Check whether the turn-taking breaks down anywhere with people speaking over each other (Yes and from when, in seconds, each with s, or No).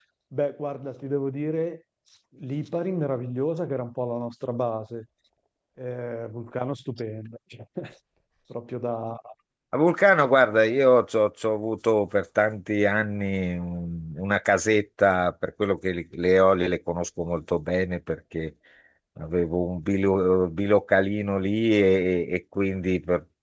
No